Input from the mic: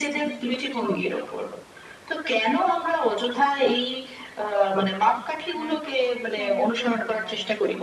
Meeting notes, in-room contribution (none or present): present